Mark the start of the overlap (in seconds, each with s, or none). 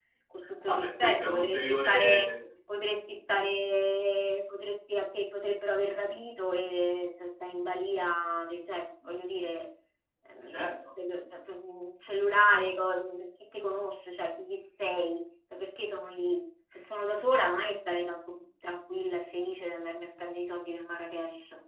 0.7 s